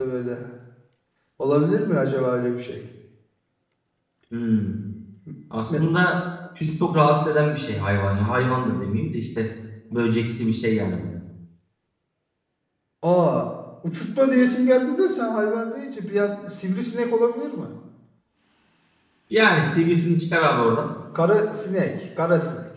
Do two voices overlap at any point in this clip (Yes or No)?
No